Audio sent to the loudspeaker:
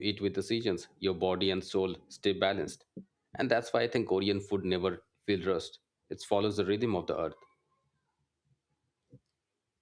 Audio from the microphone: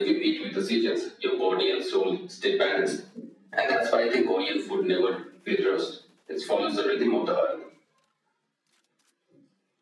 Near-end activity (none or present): none